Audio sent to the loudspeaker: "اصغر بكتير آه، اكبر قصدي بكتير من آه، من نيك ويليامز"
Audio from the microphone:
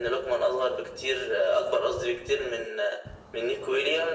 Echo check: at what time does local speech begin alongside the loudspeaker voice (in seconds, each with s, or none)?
none